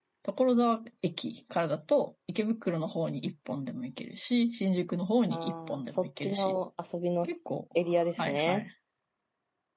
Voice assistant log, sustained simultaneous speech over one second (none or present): present